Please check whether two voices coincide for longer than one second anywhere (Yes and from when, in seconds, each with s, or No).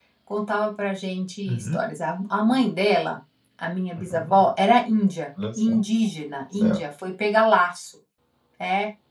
No